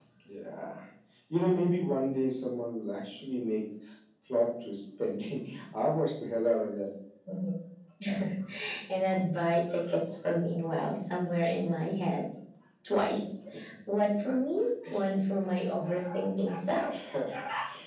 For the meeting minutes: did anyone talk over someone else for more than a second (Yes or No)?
No